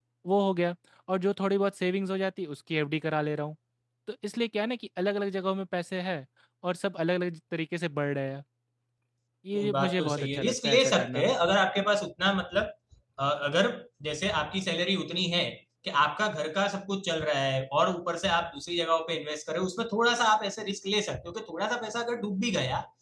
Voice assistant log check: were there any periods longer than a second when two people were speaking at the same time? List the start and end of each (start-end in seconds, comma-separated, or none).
9.5-11.3